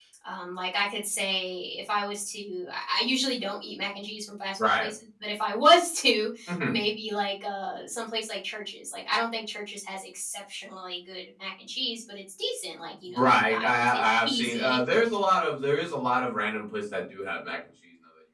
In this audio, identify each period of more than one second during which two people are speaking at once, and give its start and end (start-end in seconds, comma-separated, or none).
13.2-14.8